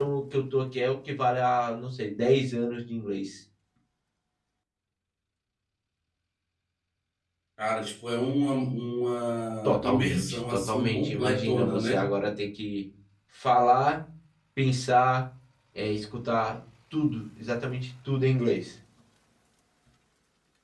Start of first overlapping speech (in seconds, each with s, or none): 9.6 s